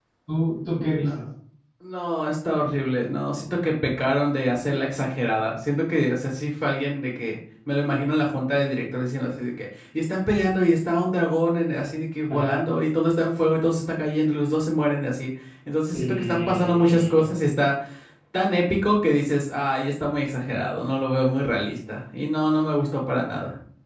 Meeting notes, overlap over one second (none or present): present